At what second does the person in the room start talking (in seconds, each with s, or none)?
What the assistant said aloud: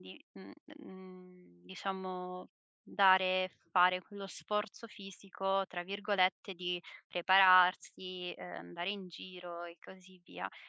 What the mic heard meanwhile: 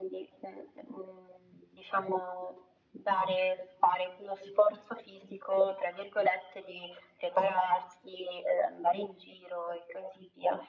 none